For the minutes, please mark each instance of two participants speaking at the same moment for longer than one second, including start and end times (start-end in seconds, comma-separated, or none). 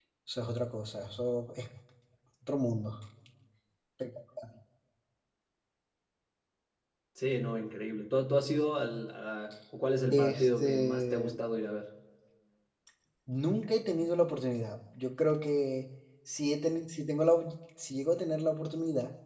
10.1-11.3